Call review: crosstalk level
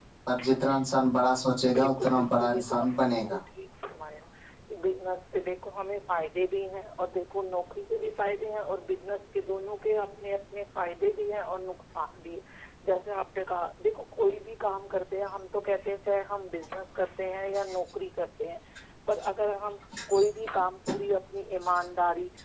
present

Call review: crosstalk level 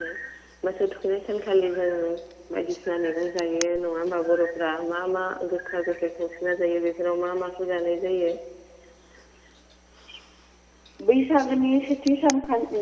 none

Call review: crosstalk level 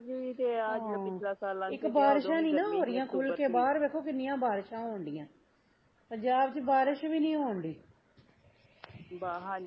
present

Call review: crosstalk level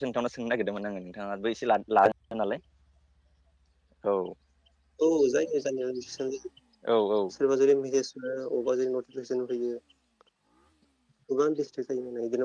none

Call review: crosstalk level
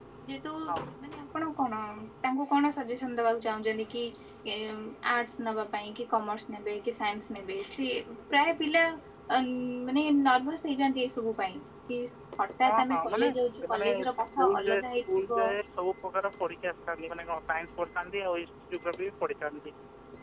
present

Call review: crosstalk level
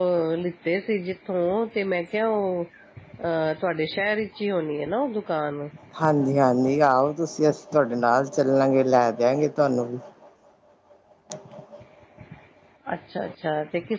none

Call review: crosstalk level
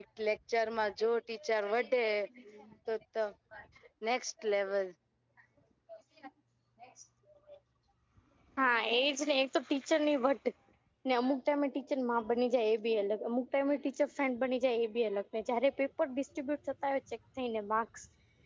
none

